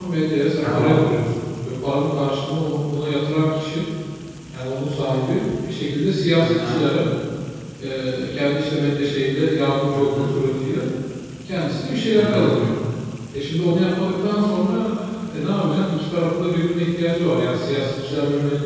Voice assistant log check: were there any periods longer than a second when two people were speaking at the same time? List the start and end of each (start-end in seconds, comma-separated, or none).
none